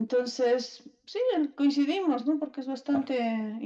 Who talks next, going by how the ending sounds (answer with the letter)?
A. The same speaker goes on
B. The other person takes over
A